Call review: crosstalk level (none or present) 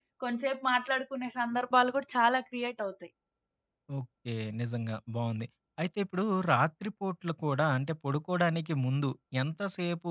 none